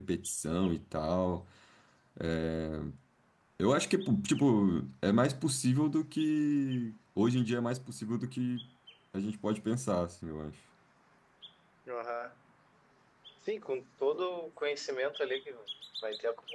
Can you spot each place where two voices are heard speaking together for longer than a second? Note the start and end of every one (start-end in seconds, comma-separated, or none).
none